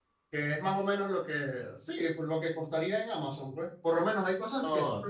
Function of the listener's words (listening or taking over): listening